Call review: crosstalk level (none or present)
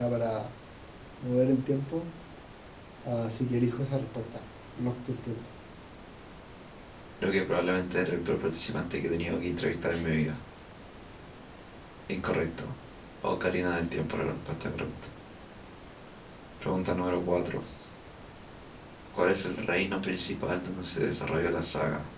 none